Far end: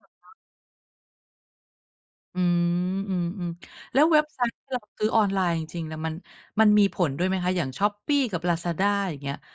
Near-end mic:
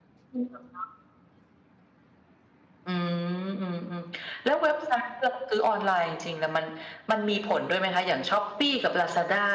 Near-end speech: none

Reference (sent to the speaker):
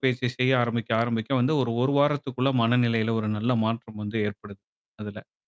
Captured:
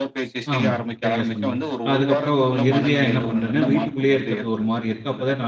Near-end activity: present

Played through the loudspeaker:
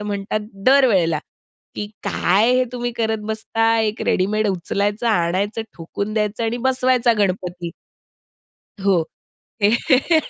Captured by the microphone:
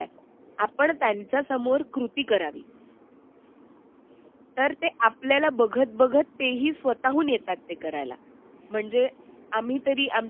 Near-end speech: present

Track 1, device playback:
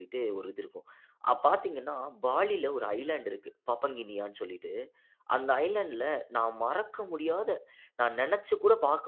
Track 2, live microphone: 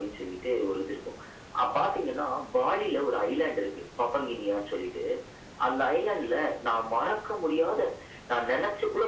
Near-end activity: none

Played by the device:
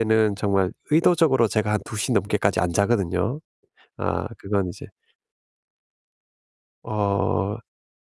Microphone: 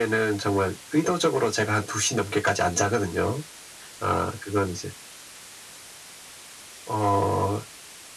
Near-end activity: none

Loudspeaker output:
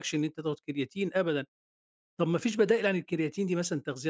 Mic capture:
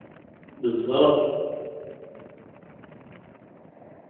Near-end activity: present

